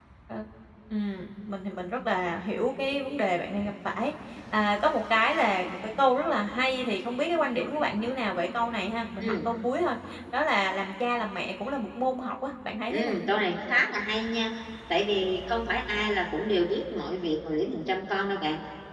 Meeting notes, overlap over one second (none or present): none